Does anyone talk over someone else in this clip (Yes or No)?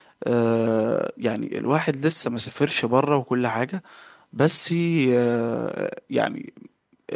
No